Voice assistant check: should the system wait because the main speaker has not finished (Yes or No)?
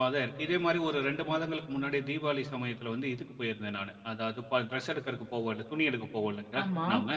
Yes